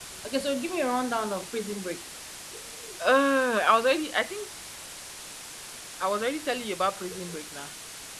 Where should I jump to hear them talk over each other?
none

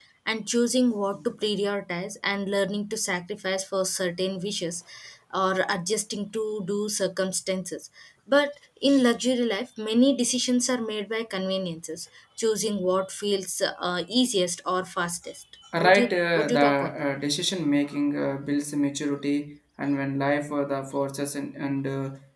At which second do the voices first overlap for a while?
16 s

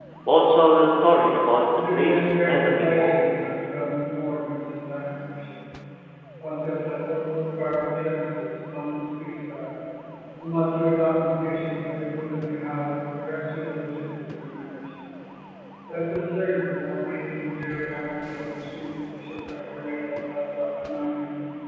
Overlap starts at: 2 s

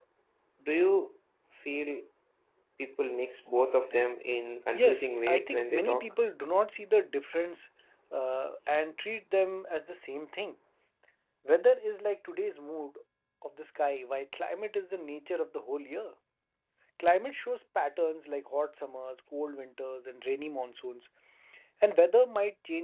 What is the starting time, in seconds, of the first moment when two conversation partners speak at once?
5 s

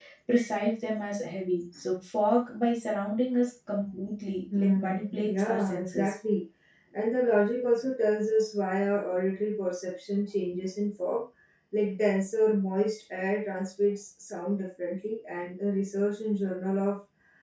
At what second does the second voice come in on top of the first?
5 s

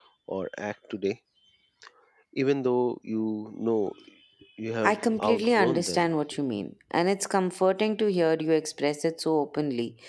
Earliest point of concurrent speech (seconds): 5 s

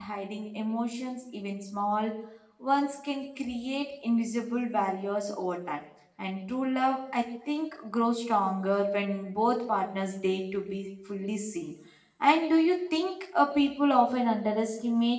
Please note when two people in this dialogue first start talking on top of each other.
none

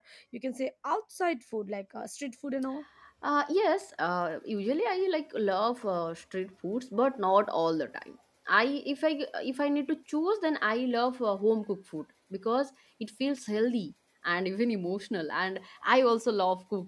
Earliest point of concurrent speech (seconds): none

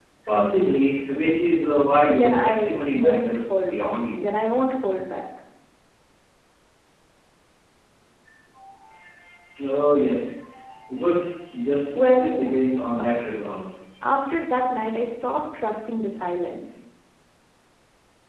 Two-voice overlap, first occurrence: 2 s

